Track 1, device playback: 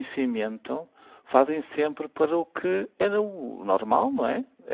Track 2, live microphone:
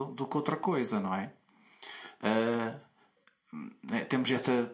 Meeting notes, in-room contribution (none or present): present